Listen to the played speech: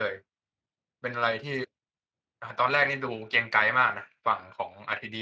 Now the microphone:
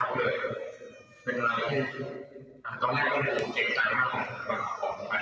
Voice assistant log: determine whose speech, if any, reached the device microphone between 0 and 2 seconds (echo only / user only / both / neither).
echo only